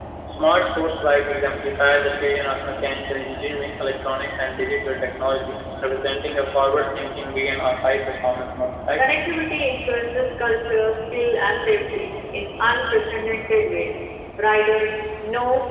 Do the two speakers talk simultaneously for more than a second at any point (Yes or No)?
No